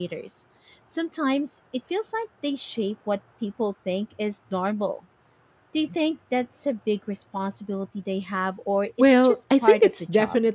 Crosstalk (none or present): present